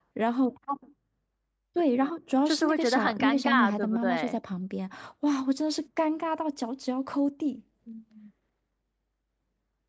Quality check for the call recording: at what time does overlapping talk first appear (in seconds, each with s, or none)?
2.5 s